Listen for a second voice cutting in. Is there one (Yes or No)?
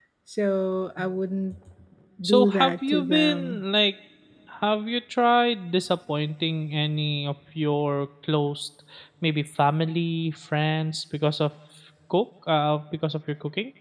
Yes